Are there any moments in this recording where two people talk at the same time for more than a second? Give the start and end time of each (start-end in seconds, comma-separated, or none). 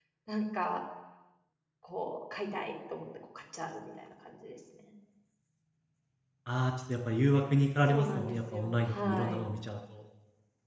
7.9-9.5